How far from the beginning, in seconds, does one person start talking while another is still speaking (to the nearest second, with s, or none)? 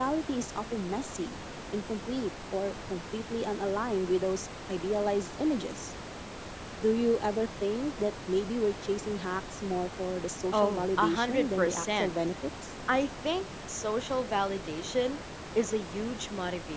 11 s